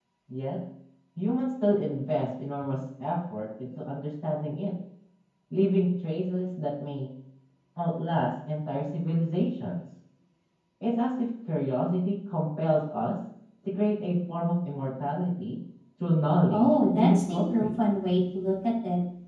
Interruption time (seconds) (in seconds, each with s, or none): 16.5 s